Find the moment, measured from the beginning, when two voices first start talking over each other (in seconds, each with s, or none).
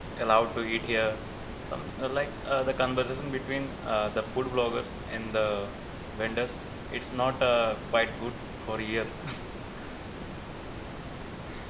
none